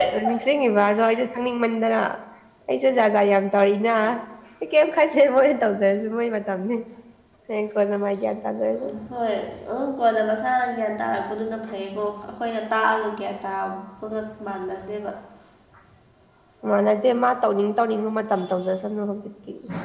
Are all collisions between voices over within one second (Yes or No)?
Yes